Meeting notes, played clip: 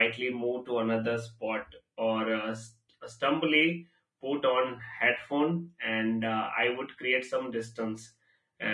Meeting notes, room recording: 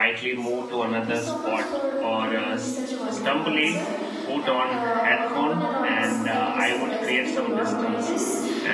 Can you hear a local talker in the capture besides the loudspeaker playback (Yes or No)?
Yes